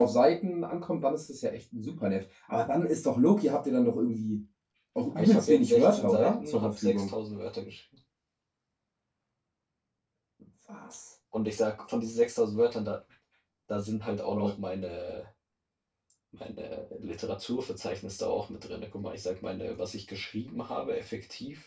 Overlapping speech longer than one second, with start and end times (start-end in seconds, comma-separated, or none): 5.2-7.1